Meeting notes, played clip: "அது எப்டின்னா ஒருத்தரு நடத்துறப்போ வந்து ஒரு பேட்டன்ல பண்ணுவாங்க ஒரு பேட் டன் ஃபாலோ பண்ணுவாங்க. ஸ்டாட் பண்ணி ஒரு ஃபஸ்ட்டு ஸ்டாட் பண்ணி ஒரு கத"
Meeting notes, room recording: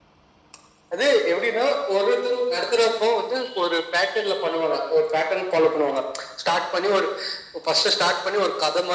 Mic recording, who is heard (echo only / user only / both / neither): echo only